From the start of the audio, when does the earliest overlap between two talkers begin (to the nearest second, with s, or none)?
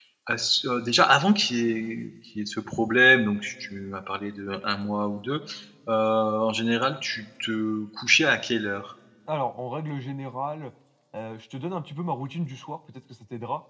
none